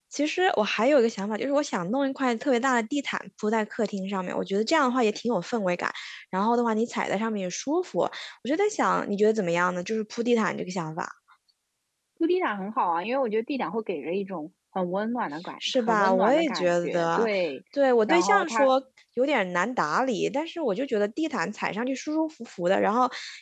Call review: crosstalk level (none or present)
present